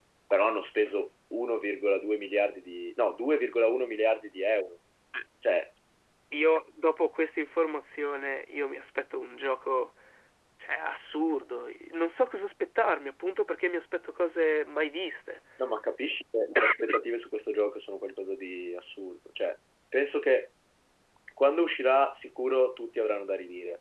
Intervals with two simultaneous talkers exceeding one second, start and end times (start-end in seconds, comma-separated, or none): none